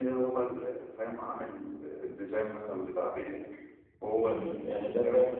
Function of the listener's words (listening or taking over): taking over